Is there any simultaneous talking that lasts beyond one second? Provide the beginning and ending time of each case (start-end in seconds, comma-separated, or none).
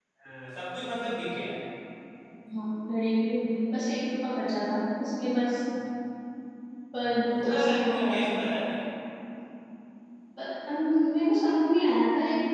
7.0-8.3